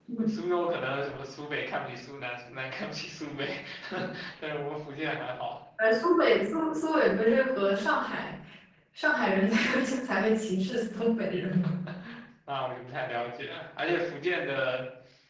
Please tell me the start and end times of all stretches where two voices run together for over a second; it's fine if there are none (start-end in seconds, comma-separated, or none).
none